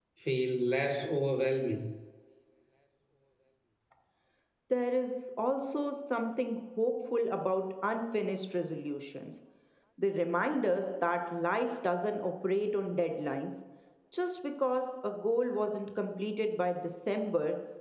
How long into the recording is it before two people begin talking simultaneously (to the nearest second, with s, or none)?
none